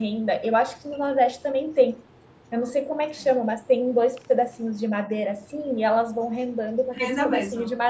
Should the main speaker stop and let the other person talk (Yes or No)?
No